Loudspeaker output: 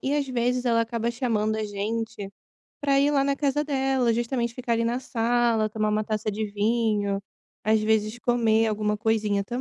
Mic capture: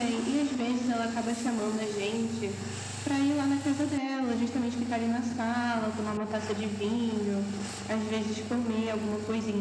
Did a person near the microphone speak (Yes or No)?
No